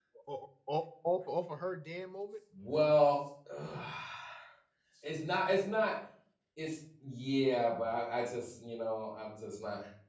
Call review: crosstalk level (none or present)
none